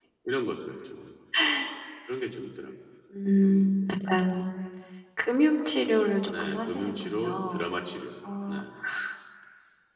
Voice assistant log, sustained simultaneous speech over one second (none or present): present